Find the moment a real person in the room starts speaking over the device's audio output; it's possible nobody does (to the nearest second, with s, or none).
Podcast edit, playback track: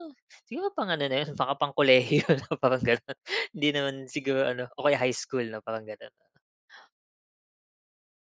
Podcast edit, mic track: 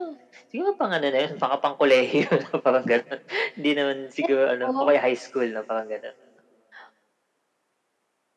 4 s